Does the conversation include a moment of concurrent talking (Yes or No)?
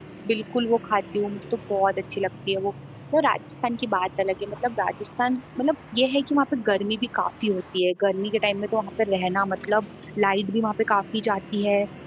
No